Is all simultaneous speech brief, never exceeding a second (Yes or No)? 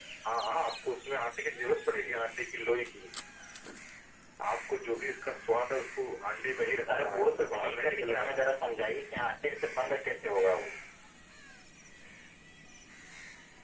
No